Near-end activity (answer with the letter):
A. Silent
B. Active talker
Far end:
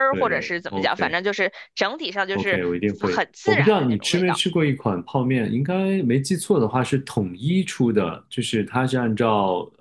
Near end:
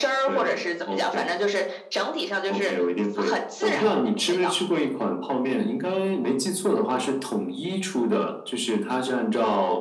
A